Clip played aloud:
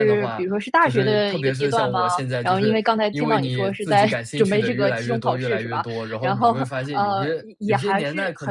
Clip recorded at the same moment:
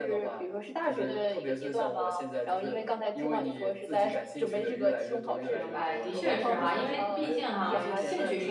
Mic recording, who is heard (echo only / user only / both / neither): both